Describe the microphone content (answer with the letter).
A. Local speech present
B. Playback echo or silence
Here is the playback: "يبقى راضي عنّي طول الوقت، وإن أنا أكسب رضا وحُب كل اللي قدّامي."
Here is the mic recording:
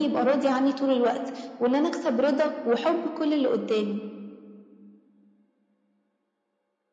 B